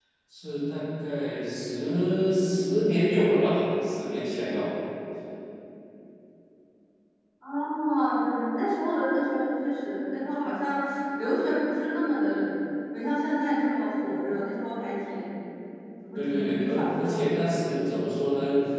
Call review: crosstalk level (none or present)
present